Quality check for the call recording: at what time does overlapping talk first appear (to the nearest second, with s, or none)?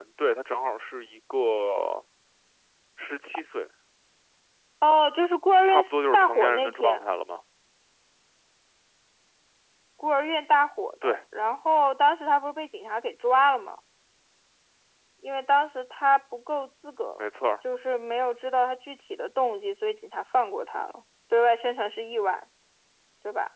6 s